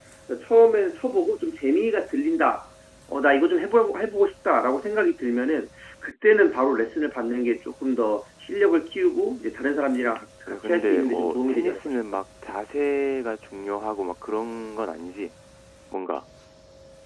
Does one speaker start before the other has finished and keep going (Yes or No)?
Yes